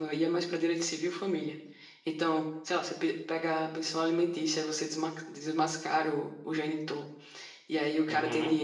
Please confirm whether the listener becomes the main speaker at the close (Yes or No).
No